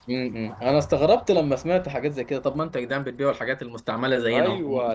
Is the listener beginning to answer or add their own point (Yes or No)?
Yes